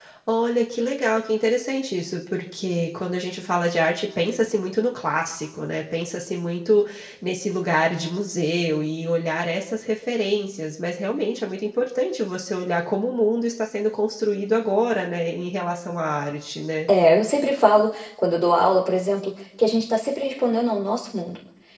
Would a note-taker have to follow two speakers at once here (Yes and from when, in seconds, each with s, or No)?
No